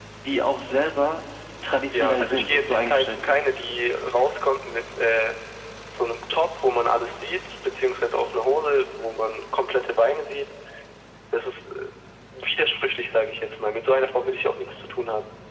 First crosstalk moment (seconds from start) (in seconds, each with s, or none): 1.9 s